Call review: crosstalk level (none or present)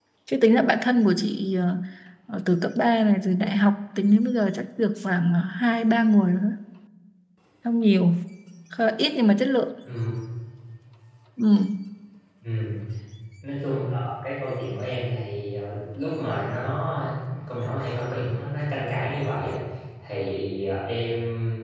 none